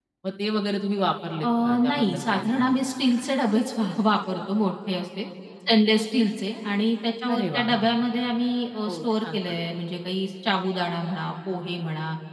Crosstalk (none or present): present